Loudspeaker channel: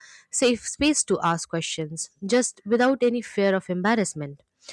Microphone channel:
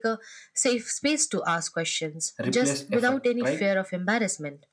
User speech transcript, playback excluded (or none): replace effect, right?